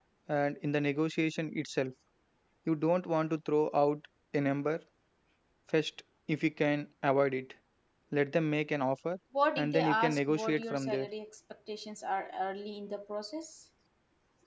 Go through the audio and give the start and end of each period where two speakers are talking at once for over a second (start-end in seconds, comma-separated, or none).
9.6-11.1